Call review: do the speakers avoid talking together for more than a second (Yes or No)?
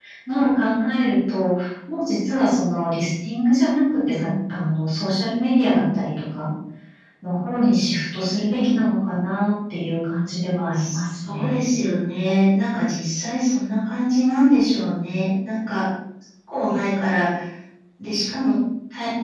Yes